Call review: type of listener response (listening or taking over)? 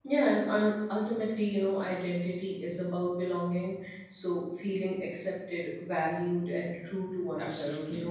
taking over